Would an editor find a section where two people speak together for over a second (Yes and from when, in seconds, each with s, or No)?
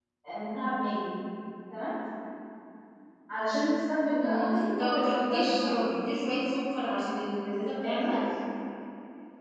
Yes, from 4.2 s